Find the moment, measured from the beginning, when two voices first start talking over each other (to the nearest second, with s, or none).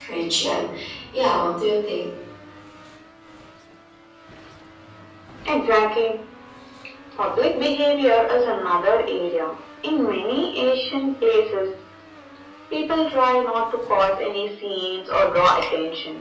none